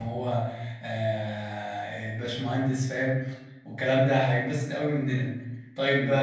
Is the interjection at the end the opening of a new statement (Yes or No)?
No